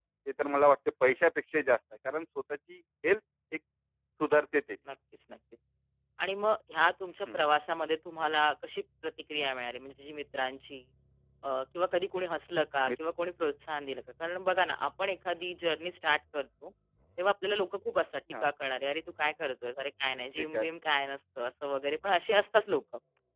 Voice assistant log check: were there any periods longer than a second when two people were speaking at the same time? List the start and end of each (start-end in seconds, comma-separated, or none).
none